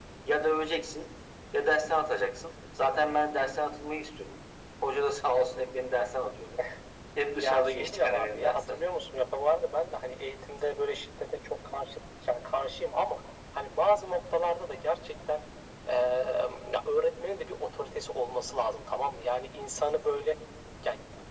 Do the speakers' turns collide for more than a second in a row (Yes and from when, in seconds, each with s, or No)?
Yes, from 7.4 s